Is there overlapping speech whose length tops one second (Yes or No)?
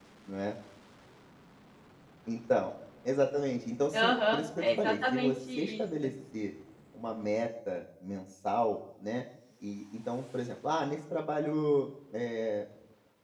Yes